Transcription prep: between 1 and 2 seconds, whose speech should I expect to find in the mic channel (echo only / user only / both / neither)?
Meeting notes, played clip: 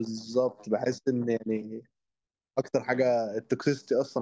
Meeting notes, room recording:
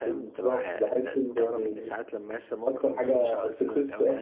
both